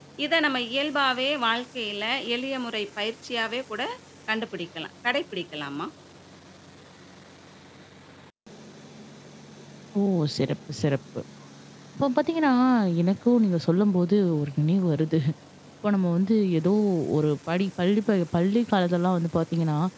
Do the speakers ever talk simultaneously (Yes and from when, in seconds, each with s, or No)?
No